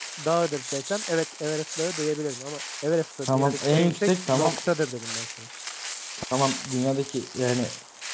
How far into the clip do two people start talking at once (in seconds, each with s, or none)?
3.3 s